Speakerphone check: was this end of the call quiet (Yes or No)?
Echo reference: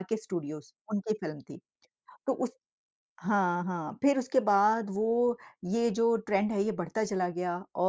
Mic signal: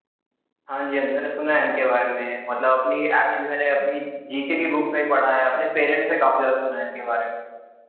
No